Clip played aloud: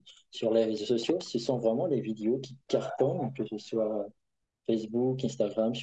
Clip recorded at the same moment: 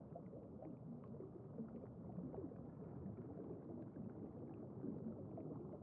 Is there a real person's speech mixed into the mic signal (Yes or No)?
No